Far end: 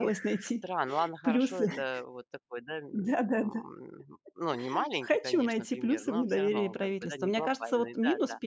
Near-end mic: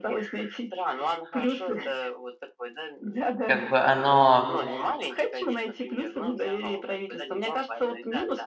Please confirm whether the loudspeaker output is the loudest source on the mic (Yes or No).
No